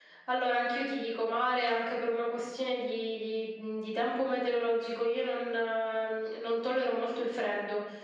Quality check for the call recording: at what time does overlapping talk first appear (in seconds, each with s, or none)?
none